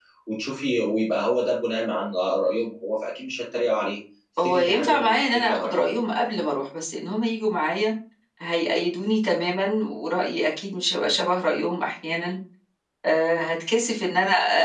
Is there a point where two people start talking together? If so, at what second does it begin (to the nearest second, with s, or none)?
4 s